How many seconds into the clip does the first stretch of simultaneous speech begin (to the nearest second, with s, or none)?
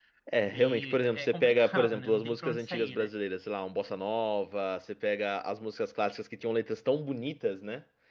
1 s